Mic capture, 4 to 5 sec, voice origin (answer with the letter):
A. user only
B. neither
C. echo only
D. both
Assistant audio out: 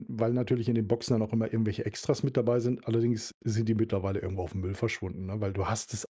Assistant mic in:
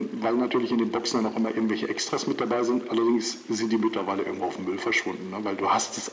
C